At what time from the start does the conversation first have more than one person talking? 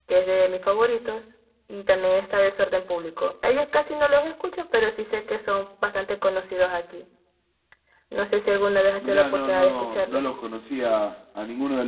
9 s

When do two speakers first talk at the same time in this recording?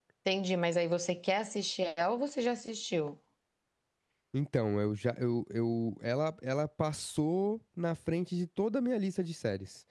none

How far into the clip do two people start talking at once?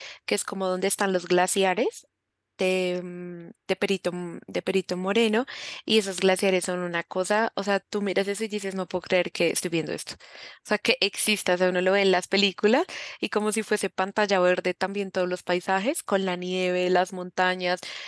none

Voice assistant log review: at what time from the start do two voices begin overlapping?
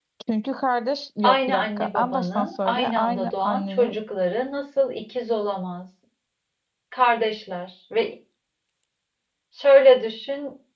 1 s

